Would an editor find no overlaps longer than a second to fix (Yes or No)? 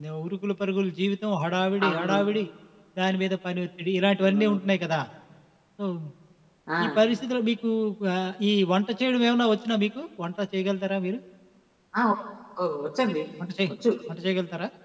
Yes